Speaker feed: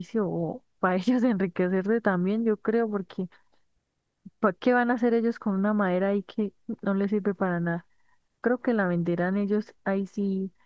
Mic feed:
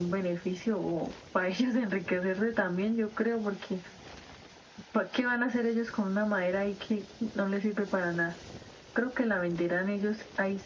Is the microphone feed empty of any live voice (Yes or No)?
Yes